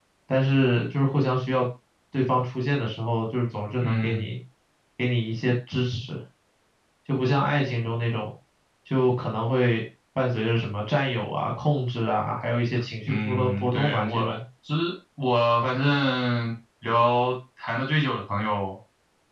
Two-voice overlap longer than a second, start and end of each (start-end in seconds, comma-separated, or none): 13.1-14.3